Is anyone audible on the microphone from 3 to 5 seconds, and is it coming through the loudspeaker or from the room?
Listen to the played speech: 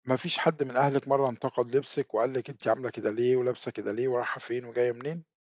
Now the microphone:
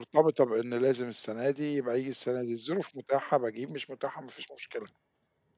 user only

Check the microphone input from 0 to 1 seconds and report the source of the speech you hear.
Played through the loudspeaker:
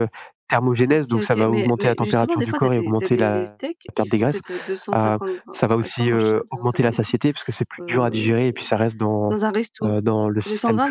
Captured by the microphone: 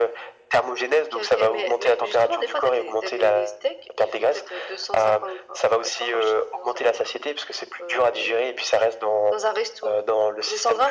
echo only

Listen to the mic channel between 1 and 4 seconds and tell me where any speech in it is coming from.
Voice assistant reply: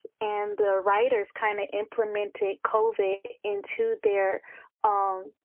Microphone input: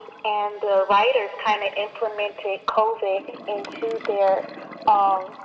echo only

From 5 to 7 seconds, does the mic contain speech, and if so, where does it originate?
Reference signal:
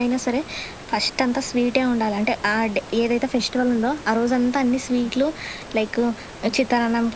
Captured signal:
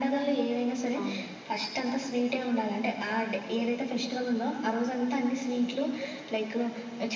echo only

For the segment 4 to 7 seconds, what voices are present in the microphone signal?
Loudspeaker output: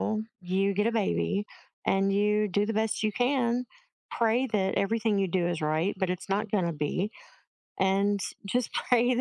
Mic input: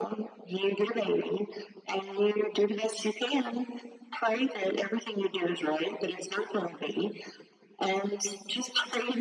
echo only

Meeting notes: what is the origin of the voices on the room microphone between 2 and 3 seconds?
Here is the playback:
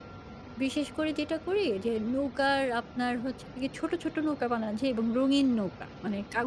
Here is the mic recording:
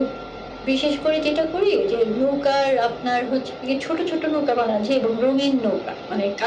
echo only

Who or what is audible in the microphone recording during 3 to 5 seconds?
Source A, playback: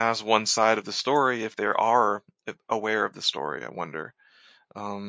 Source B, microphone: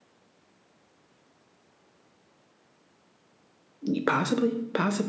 user only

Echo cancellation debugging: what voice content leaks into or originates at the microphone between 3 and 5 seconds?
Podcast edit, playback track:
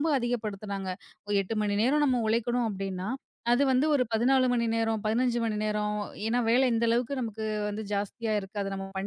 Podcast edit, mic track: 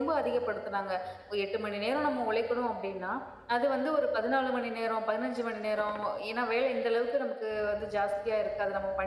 echo only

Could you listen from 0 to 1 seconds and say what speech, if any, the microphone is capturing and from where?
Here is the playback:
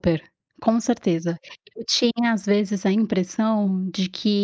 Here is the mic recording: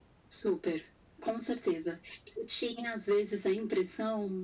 echo only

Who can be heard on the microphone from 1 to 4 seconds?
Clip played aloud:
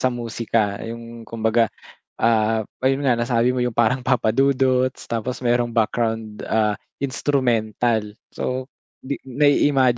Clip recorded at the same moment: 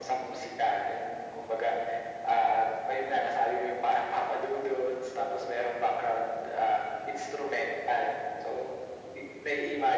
echo only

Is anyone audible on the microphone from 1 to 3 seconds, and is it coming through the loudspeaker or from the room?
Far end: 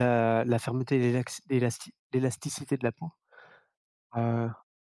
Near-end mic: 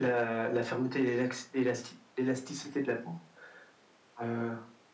echo only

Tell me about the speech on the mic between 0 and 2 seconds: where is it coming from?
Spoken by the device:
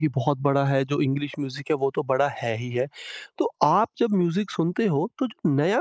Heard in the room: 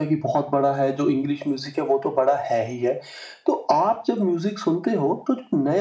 echo only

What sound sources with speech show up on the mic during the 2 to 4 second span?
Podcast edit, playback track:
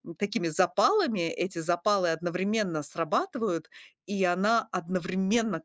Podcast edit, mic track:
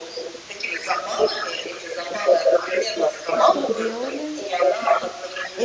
both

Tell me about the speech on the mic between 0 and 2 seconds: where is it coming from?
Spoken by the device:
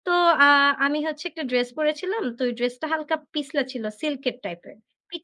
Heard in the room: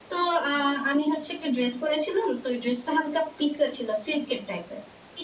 echo only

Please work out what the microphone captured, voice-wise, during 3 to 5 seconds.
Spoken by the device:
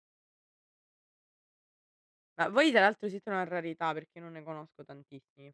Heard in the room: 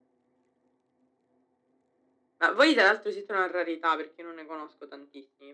echo only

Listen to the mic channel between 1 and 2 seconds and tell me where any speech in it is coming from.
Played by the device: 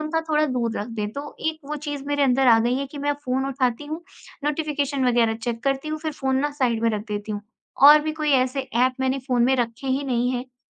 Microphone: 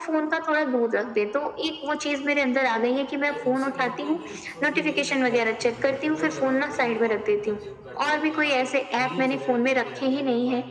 echo only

